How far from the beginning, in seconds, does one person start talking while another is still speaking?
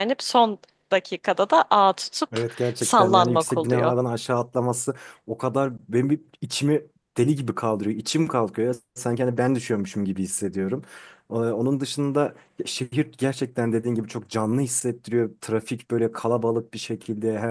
2 s

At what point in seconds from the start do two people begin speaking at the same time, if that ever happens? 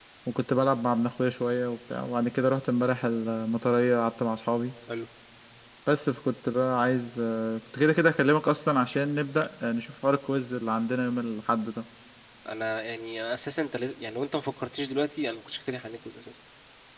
none

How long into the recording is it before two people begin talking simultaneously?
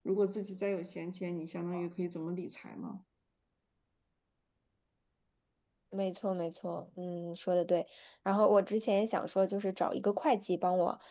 none

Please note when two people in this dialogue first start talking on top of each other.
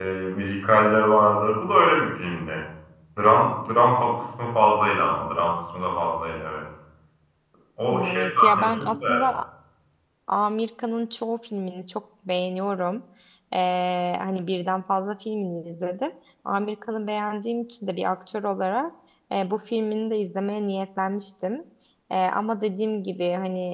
8 s

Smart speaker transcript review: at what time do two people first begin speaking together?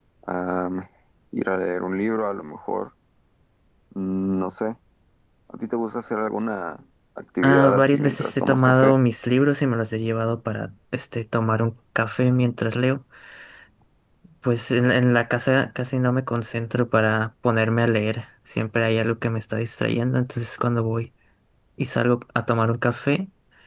7 s

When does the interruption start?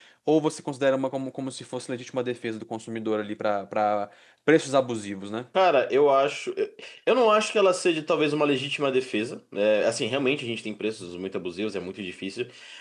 none

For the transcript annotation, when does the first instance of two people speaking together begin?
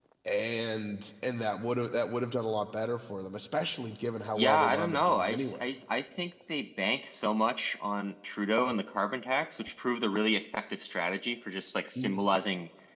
4 s

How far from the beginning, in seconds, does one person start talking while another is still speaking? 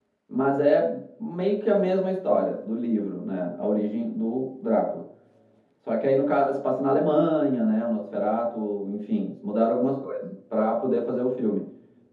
none

